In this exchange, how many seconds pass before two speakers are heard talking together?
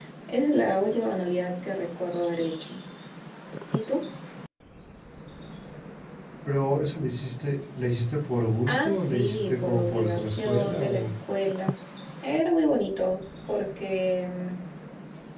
9 s

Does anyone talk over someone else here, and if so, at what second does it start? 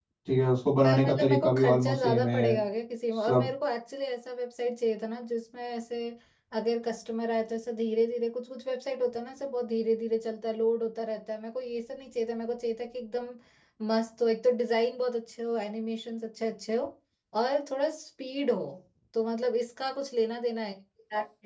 1 s

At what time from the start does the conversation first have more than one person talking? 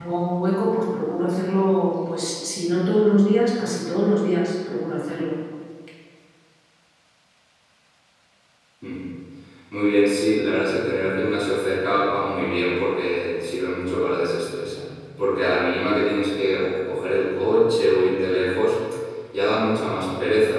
none

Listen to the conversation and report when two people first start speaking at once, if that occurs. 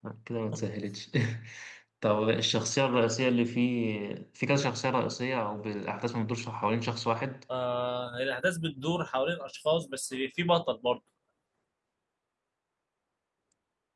none

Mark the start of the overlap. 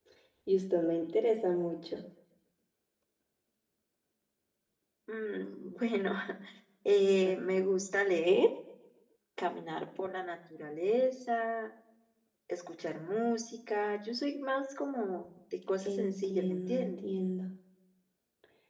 16 s

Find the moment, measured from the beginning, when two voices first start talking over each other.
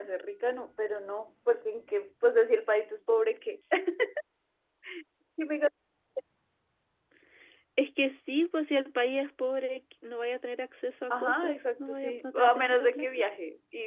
11 s

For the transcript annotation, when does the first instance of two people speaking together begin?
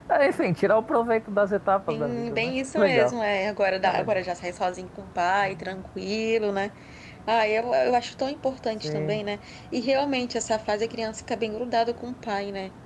2 s

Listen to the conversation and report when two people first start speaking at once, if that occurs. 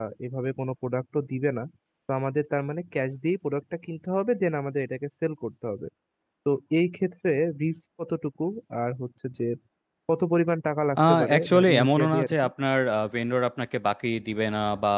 11 s

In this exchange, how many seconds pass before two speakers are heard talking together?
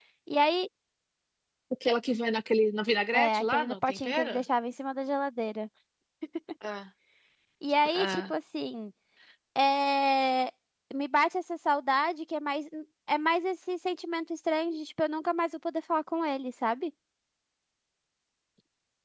3 s

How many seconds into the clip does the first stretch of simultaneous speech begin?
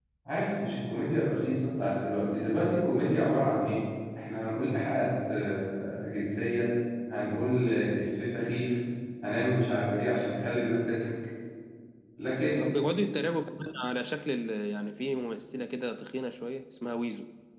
none

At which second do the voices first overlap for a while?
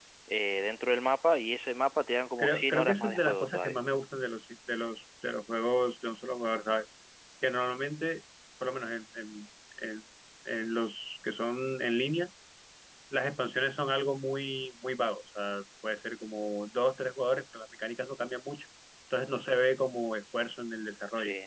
2 s

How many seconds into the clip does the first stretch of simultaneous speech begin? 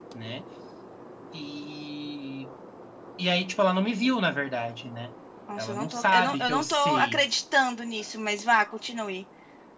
6 s

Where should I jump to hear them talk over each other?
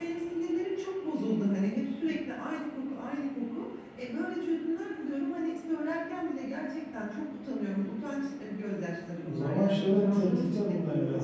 9 s

